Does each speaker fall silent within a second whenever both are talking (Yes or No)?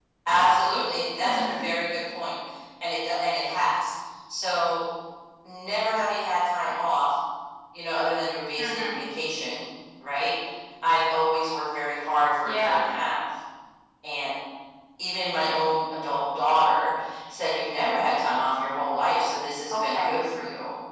Yes